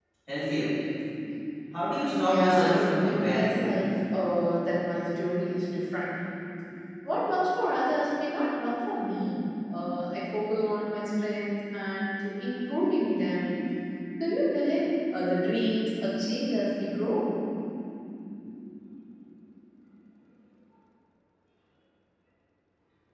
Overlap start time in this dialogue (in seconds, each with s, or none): 2.1 s